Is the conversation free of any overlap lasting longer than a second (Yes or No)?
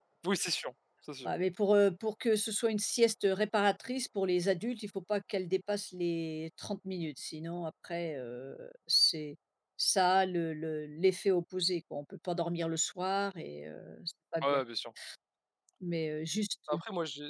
Yes